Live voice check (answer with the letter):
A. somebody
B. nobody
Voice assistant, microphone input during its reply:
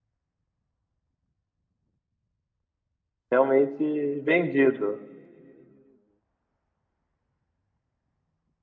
A